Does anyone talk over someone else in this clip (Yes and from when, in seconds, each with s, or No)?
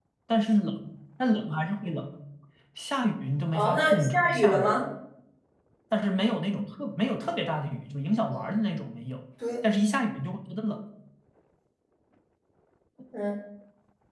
Yes, from 3.5 s